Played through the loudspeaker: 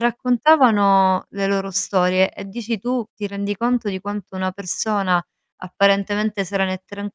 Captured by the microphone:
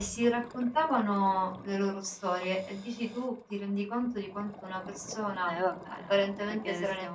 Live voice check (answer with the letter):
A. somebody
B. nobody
A